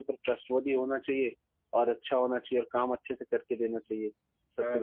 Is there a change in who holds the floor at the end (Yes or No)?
Yes